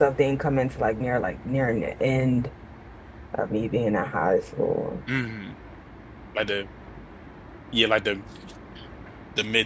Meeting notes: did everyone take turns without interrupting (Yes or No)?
Yes